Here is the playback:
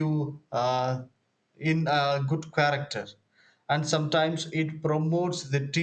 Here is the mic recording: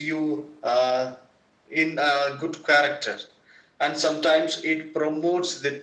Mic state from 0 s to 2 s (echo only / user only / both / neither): echo only